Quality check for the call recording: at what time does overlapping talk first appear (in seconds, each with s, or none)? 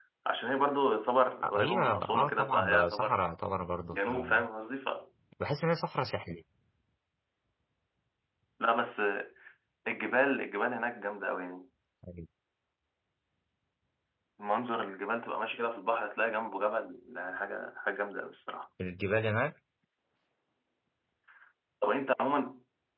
1.4 s